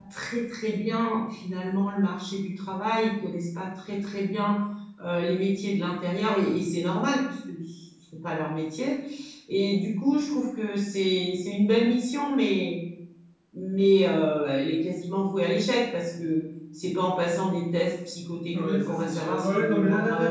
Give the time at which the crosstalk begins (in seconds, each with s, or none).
18.5 s